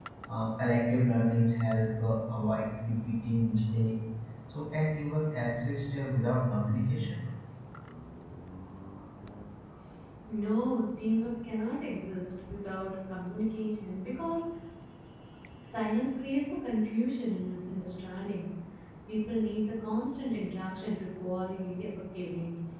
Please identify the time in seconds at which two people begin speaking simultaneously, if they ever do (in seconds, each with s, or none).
none